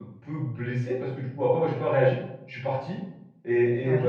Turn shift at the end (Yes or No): No